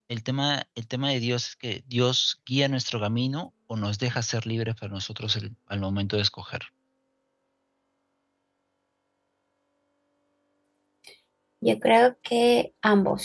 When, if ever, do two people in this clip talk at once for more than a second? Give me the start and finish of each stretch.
none

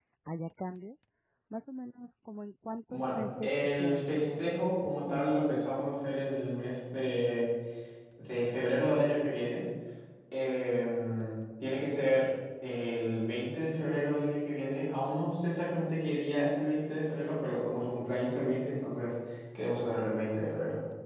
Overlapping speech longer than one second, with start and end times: 2.9-5.6

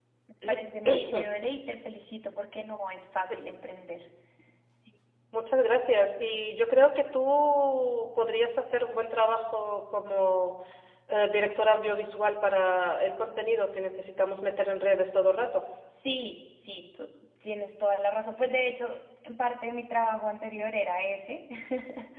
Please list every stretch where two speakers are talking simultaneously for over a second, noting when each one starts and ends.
none

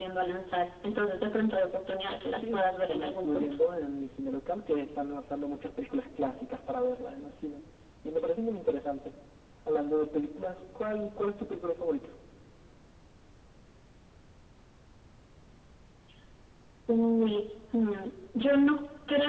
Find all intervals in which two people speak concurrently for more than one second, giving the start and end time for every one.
2.3-3.6

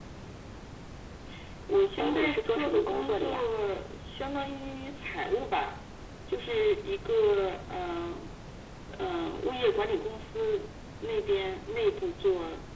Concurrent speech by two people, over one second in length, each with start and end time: 2.0-3.5

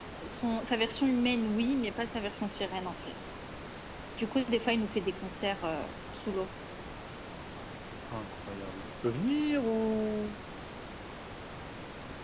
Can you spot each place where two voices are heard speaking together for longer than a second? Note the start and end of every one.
none

